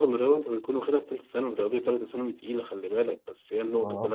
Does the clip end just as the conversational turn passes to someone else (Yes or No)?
No